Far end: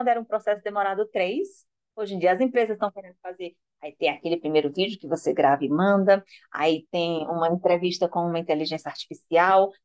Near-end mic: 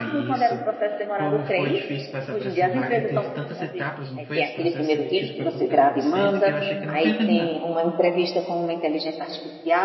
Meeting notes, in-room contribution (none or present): present